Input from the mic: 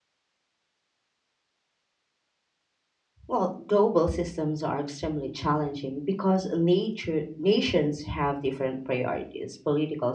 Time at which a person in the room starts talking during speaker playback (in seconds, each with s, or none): 3.3 s